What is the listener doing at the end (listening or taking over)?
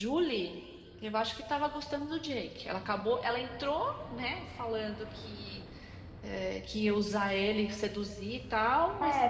taking over